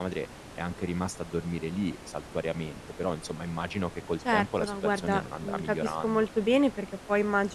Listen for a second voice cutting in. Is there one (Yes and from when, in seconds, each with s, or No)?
Yes, from 4.2 s